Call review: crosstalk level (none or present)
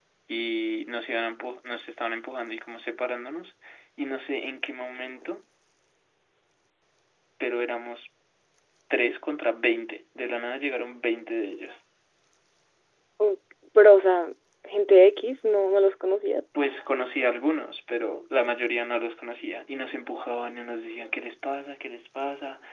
none